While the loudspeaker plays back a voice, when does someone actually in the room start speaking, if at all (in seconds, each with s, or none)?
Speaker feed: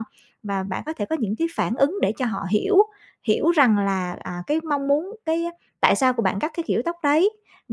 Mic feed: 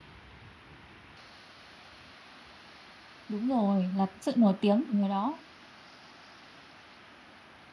3.3 s